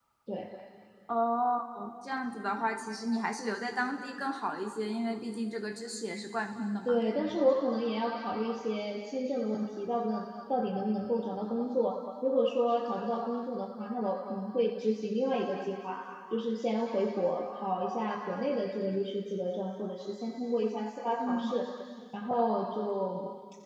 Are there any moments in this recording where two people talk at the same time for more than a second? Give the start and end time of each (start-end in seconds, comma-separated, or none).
none